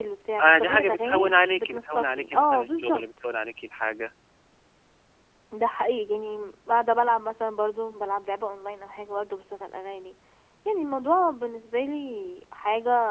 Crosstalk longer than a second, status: present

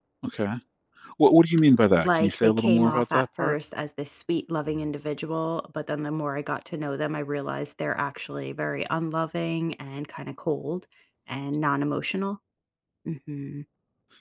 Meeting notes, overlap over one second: present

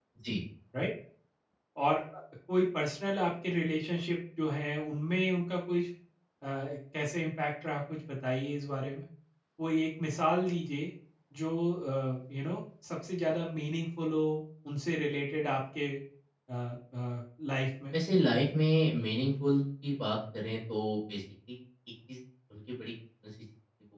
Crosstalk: none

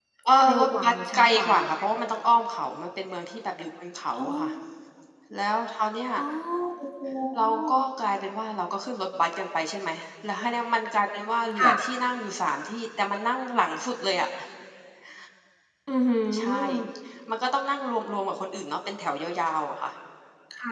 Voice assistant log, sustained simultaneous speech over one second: present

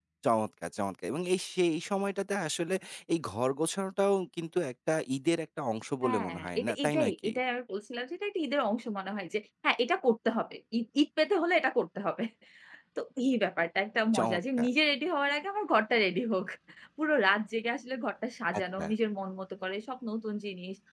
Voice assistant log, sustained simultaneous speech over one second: present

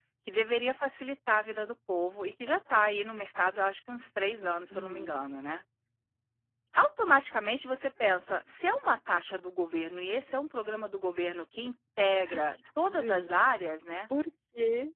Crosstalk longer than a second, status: none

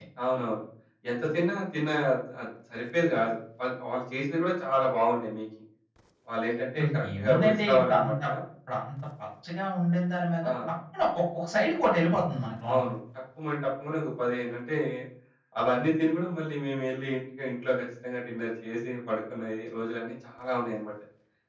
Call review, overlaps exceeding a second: present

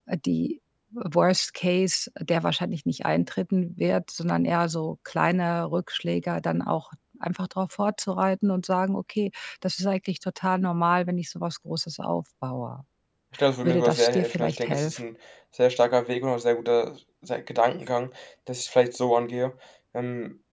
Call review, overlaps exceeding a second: present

